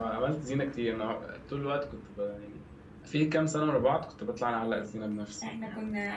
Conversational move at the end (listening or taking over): taking over